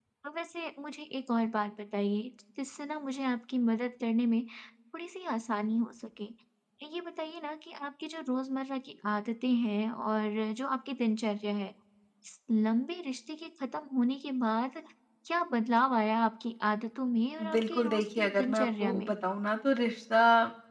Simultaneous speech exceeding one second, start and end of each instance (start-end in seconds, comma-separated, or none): 17.5-19.1